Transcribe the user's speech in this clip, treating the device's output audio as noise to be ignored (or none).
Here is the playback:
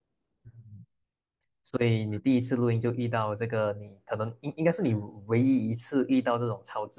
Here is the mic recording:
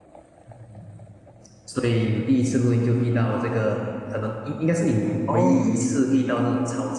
哦，